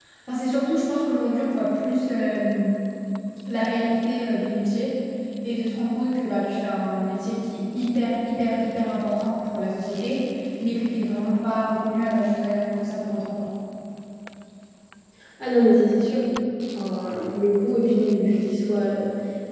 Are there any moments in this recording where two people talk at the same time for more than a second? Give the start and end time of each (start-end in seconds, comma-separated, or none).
none